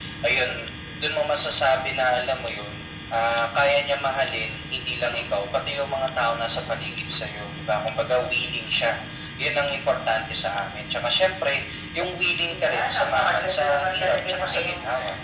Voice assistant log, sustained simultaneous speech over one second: present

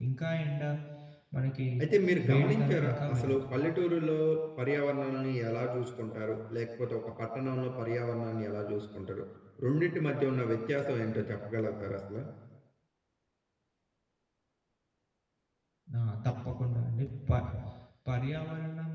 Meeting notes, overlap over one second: present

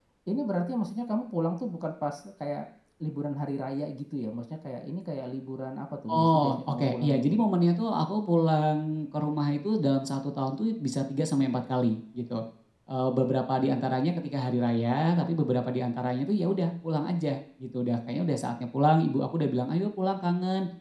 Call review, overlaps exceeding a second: present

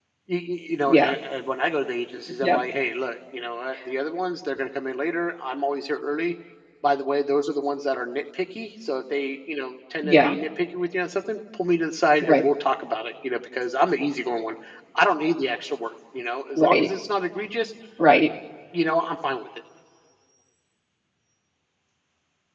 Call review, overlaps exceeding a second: none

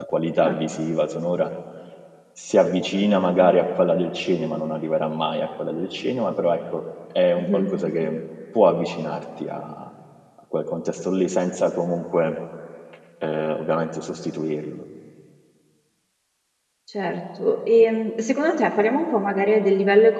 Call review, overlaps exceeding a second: none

